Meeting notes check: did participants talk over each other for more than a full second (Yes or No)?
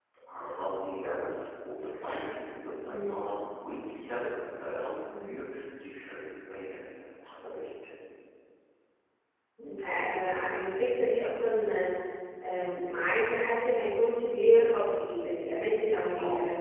No